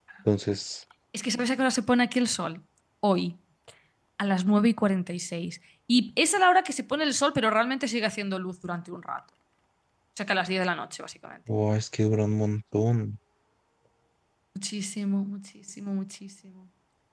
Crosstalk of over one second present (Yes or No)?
No